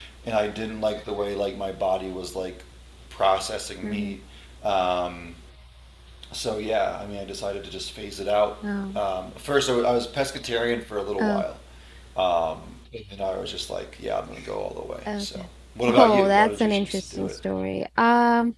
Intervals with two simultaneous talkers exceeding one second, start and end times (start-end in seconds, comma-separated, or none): 15.9-17.4